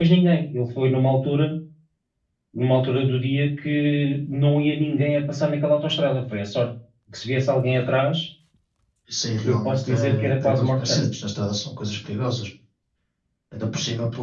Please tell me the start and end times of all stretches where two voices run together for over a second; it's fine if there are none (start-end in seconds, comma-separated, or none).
9.4-11.0